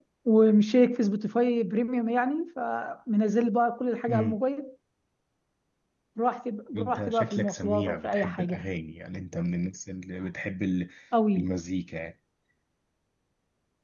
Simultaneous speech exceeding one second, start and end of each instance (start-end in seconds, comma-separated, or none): 6.8-8.6